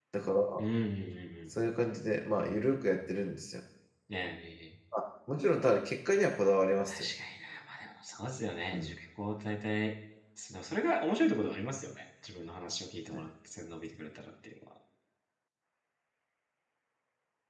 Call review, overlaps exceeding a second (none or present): none